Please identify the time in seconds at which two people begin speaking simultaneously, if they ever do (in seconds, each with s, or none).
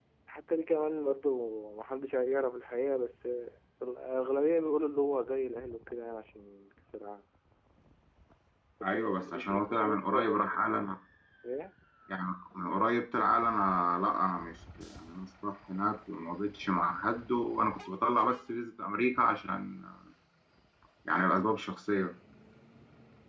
8.8 s